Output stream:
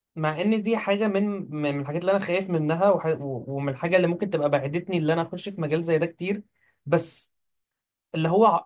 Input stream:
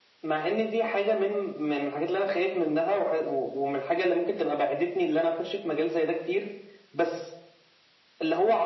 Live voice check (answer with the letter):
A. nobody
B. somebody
A